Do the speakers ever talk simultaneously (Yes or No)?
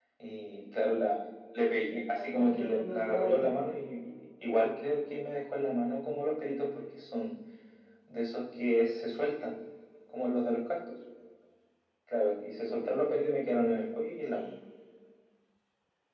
Yes